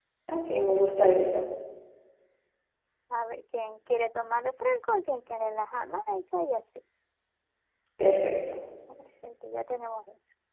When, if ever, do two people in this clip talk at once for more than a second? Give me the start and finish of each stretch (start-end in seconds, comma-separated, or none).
none